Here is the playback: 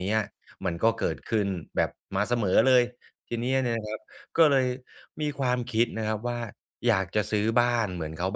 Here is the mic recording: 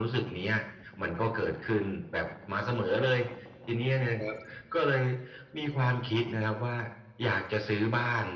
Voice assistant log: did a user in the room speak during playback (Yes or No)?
No